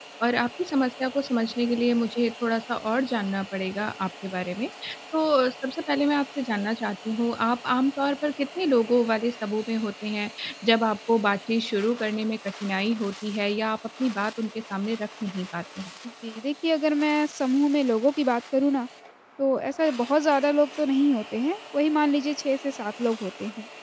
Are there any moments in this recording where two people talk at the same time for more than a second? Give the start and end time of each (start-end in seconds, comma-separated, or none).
none